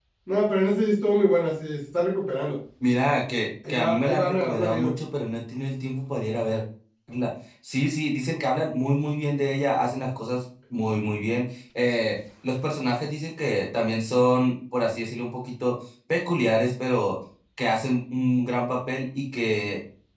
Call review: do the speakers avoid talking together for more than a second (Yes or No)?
No